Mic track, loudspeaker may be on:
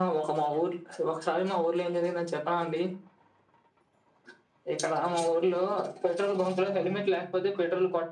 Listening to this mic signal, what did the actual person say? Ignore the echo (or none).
none